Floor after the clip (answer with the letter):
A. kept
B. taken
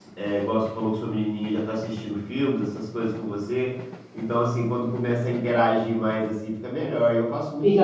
B